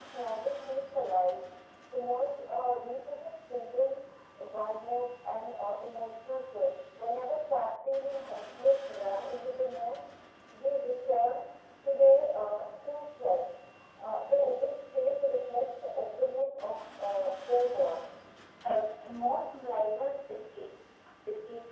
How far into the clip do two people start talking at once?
none

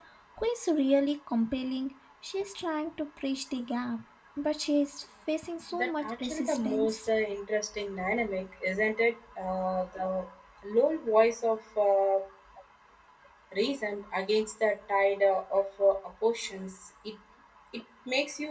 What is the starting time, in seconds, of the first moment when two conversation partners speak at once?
6 s

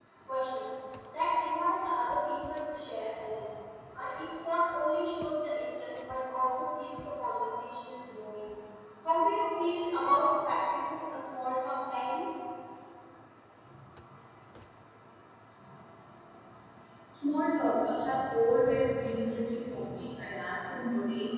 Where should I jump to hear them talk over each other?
none

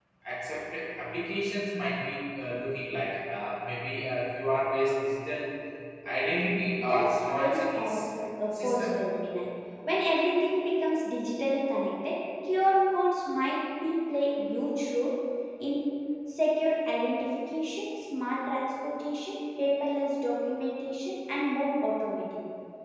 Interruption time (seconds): 7 s

